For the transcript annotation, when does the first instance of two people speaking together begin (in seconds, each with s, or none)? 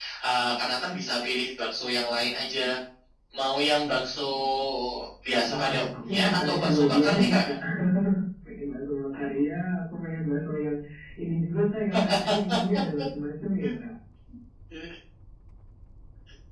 5.5 s